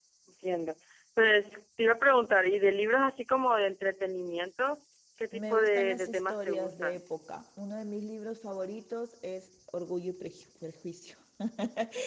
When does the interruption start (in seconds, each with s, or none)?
5.3 s